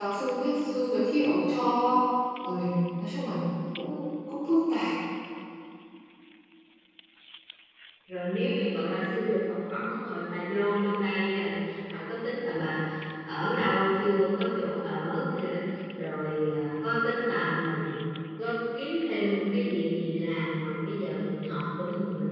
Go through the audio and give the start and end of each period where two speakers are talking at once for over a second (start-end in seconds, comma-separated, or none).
none